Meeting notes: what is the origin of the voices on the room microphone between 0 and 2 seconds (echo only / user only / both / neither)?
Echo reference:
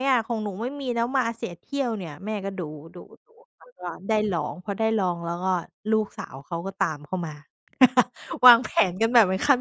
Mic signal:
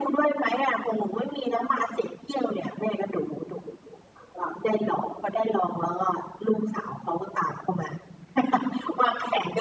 echo only